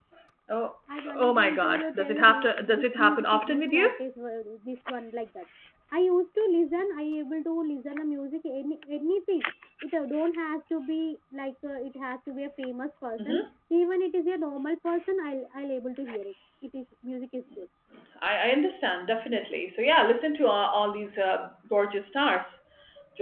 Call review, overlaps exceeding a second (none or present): present